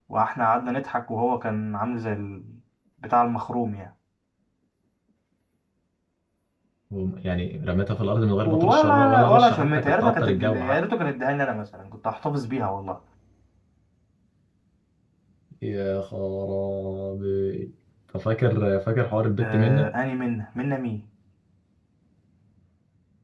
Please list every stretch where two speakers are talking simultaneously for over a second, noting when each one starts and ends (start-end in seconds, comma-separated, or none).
8.4-10.8